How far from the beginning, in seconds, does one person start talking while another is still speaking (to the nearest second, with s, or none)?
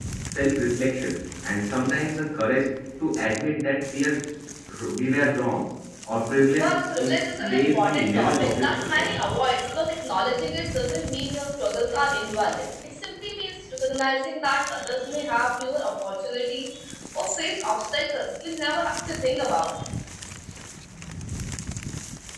7 s